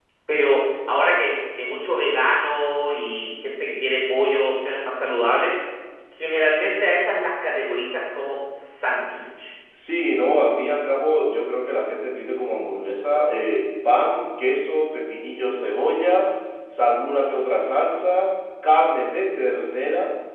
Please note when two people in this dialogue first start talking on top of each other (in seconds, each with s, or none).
none